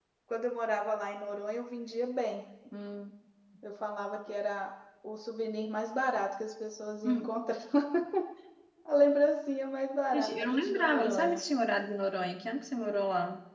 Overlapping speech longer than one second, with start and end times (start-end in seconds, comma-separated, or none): 10.1-11.4